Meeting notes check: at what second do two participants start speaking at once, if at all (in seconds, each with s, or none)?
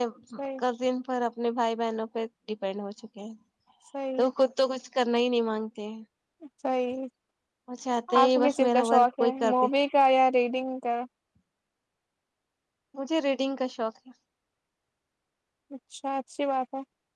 8.2 s